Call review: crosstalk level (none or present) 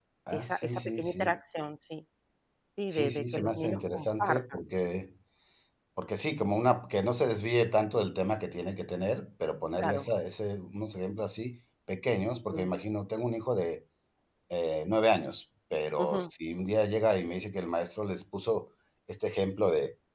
present